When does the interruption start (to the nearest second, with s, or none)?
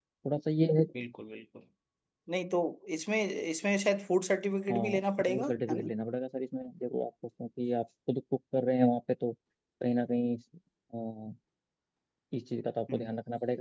5 s